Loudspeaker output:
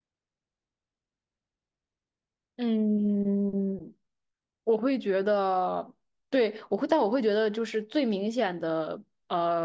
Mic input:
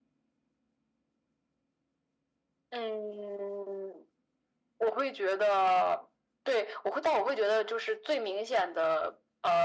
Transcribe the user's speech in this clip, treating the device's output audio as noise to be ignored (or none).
none